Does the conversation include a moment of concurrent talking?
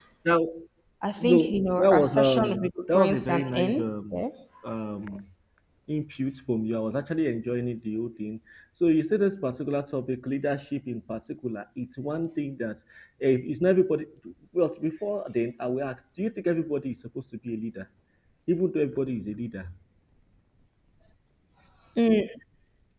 Yes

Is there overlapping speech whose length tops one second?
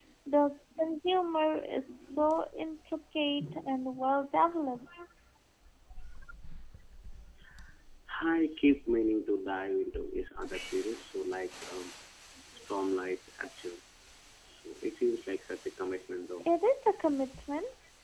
No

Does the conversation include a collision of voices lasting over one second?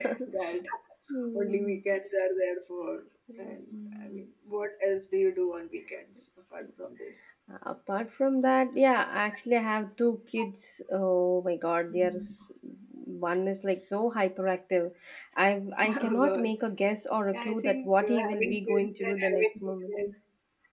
Yes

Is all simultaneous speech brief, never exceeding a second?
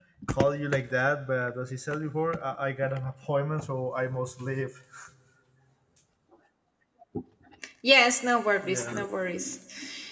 Yes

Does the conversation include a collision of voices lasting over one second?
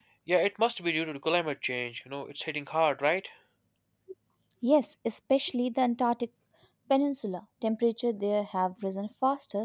No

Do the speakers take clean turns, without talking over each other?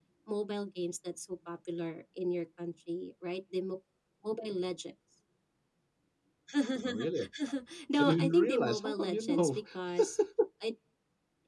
No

